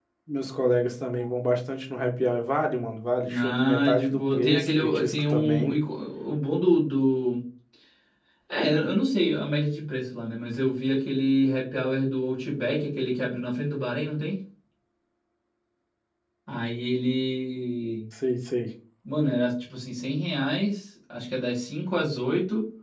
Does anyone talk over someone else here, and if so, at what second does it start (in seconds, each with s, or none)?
3.2 s